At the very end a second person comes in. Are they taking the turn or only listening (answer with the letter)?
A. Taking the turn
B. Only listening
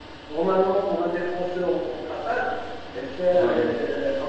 B